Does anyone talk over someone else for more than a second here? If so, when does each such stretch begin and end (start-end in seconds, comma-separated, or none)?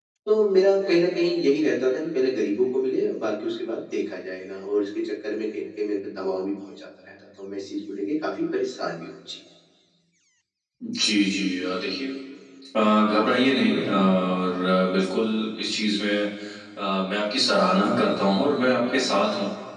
none